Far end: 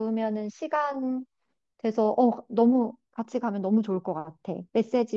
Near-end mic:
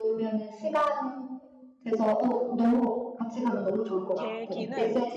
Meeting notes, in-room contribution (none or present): present